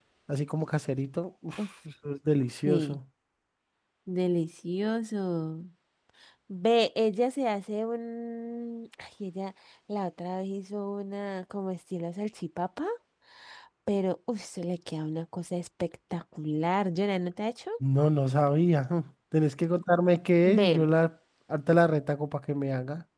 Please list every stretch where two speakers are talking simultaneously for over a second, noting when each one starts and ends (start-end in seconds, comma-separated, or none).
none